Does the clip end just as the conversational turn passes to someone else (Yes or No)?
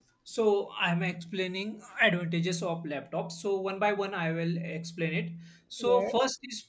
No